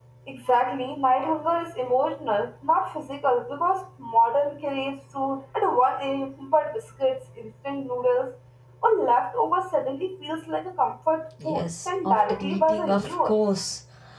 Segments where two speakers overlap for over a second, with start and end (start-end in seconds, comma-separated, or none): 11.4-13.3